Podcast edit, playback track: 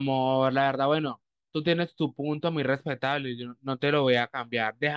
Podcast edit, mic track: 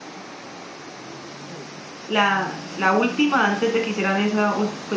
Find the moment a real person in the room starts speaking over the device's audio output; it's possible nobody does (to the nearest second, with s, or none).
2 s